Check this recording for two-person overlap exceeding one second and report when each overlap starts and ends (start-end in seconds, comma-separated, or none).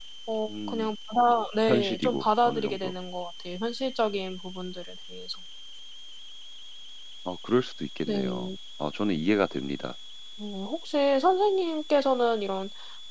1.7-2.9